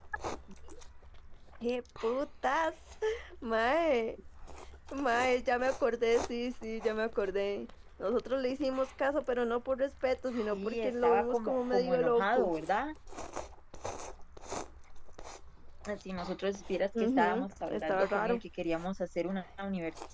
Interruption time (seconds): 10.5 s

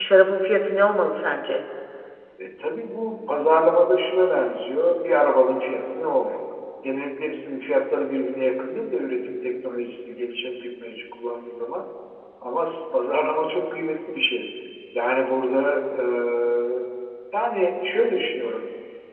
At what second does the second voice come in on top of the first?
none

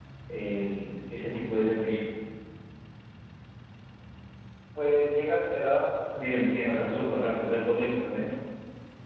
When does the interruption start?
6.2 s

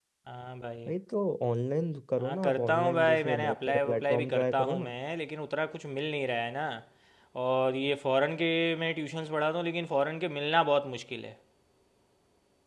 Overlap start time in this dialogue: 2.2 s

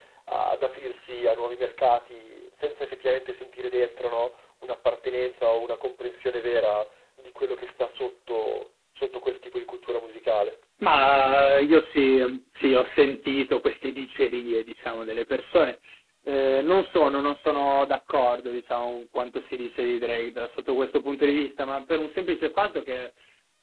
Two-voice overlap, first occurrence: none

